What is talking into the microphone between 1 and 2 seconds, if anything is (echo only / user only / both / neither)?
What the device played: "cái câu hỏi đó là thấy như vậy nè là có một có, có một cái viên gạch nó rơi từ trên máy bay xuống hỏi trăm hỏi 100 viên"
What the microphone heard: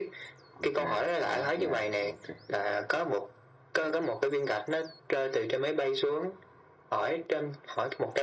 both